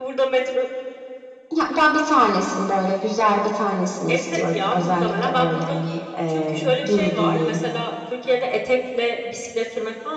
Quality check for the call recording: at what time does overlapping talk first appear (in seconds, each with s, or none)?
4.1 s